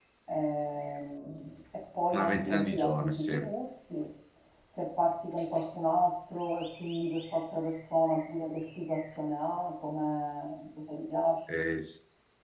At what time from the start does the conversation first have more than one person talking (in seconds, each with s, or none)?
2.1 s